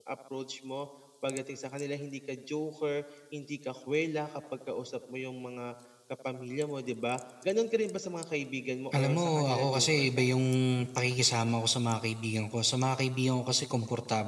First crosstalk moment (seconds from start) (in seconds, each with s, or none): 8.9 s